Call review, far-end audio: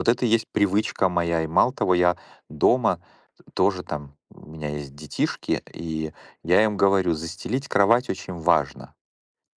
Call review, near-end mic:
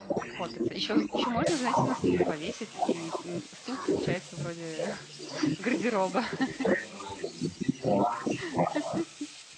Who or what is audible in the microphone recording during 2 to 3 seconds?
both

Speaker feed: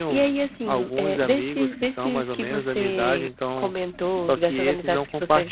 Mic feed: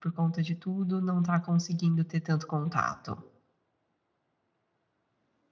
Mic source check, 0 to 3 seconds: user only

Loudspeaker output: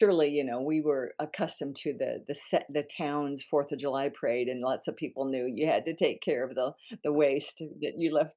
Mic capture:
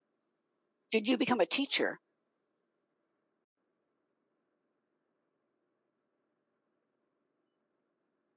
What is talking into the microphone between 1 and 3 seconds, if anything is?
user only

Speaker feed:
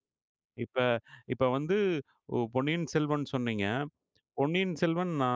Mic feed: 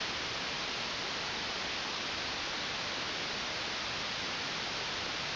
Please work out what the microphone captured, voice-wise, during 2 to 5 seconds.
neither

